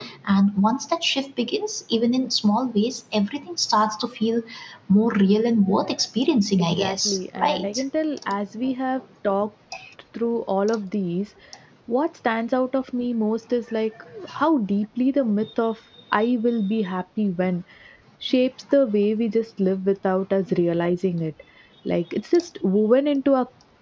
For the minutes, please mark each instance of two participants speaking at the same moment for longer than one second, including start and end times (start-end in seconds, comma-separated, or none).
6.6-7.8